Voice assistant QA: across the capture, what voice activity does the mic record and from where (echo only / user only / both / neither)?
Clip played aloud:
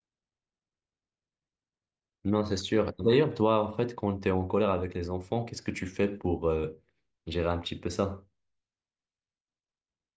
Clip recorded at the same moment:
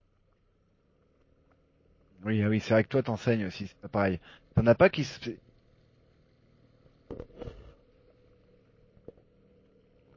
user only